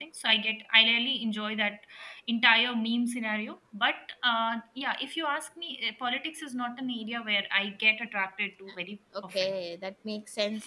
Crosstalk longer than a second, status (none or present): none